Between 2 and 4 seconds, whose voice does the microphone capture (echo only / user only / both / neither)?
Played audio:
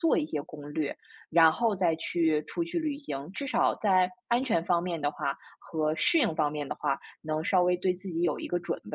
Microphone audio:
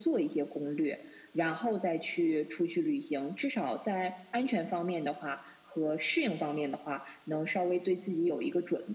echo only